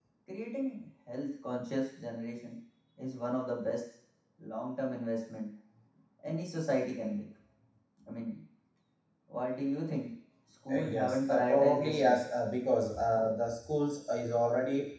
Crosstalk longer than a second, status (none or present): present